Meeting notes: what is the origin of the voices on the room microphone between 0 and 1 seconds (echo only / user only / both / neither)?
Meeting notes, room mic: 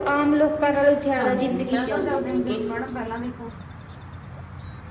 echo only